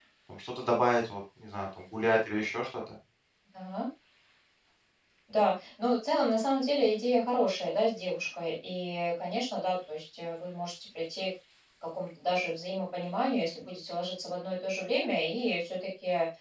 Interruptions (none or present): none